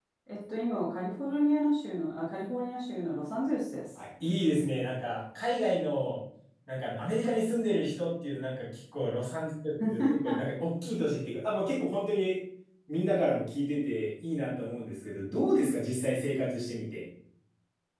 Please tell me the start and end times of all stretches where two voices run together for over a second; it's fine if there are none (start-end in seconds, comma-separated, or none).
none